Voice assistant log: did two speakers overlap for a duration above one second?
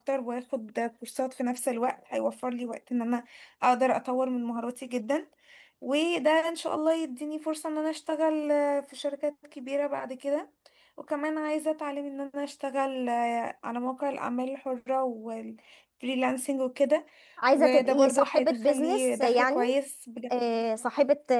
Yes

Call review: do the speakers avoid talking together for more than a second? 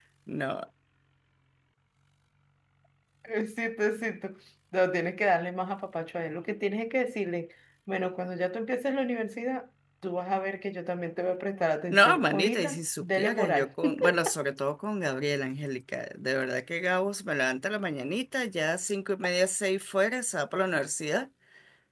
No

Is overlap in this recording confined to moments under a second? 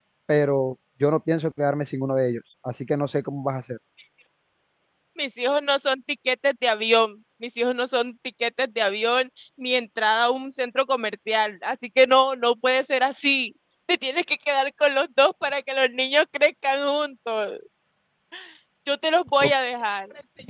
Yes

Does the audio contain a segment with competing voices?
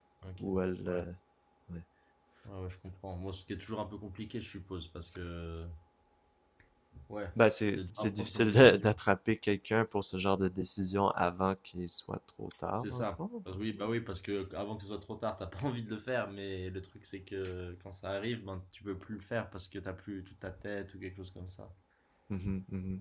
Yes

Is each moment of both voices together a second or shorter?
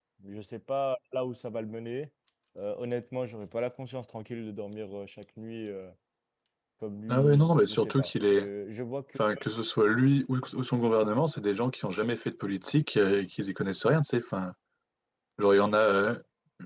No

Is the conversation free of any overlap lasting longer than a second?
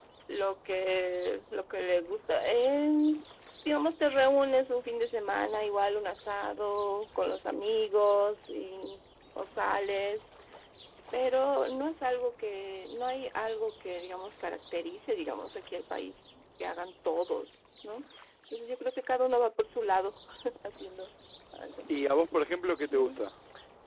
Yes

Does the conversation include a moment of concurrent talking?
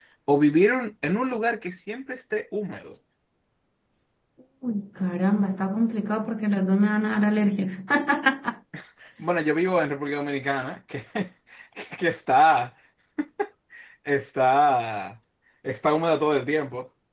No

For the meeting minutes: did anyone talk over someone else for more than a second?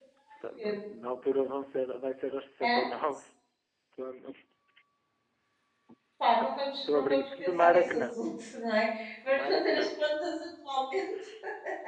Yes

